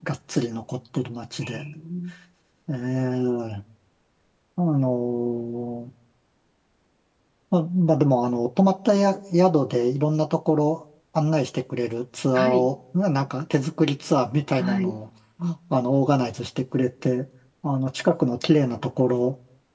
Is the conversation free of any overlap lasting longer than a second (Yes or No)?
Yes